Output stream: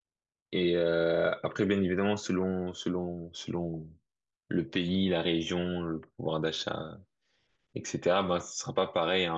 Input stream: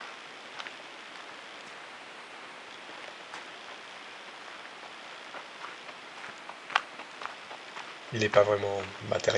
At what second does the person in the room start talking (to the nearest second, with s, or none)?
8 s